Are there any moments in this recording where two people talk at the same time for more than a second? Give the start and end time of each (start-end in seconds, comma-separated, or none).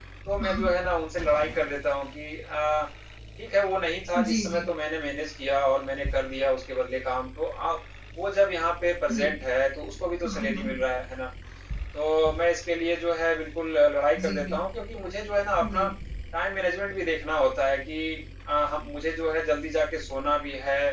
none